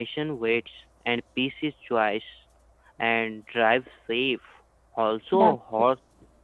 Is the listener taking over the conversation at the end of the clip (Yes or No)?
No